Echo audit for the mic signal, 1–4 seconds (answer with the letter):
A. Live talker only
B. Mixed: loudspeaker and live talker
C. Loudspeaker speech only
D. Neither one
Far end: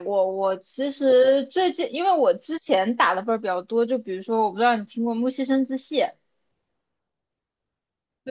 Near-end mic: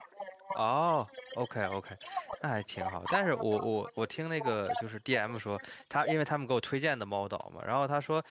B